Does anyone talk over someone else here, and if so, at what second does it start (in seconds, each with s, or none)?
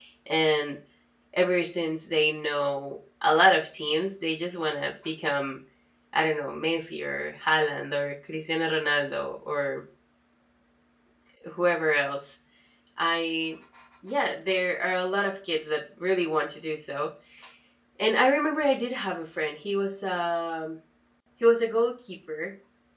none